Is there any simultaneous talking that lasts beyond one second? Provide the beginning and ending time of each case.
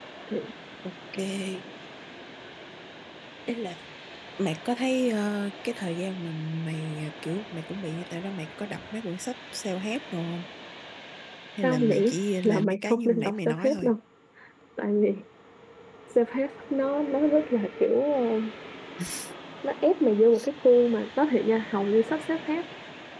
12.4-13.9

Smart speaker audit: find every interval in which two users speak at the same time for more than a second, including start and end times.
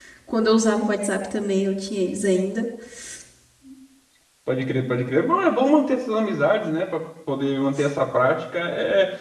none

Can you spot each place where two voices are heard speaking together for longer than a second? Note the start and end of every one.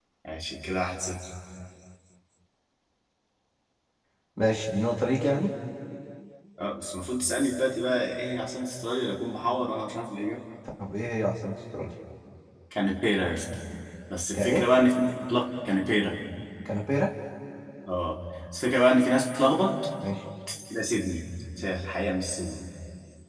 none

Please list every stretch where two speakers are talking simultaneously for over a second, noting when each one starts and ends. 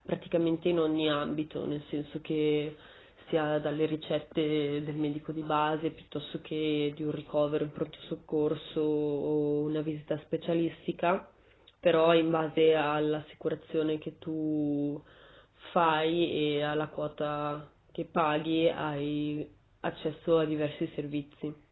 none

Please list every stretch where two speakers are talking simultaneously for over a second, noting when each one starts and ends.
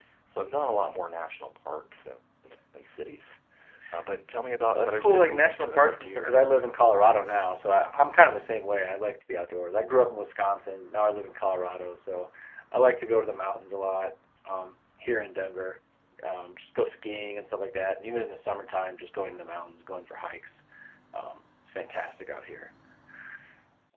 4.7-6.4

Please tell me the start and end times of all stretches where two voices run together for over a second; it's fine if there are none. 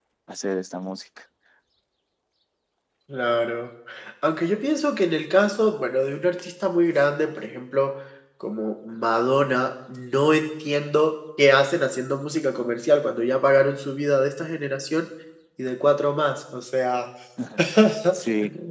none

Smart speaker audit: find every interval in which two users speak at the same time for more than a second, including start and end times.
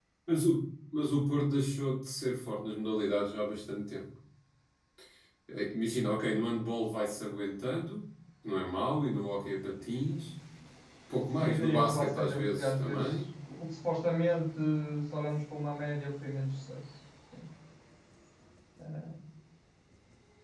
11.4-13.2

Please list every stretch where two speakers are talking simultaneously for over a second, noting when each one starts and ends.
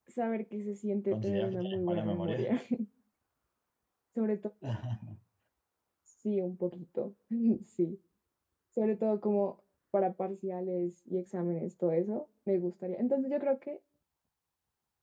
1.1-2.5

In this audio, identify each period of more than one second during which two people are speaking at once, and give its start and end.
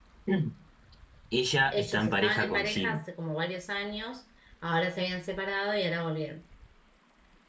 1.7-3.1

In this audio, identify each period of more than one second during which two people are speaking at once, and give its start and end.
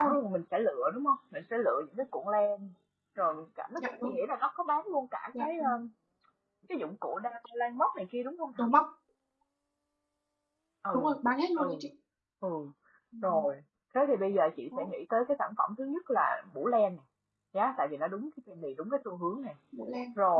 none

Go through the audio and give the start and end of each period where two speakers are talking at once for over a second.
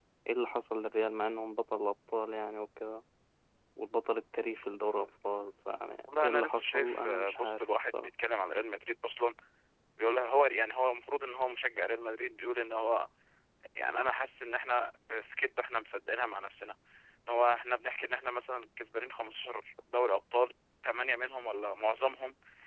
6.2-8.1

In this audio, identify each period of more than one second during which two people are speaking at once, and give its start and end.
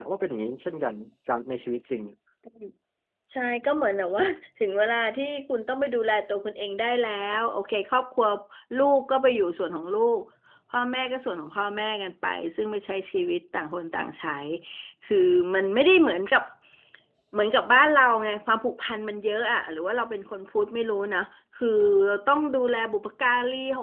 none

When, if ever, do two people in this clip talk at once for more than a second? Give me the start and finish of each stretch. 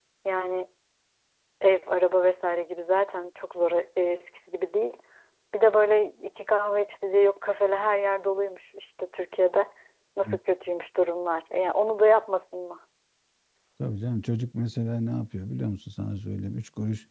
none

